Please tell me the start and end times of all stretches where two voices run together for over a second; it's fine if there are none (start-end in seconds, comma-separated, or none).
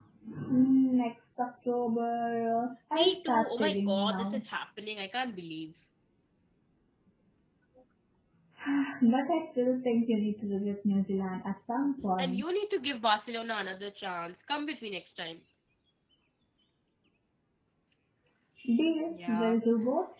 2.9-4.4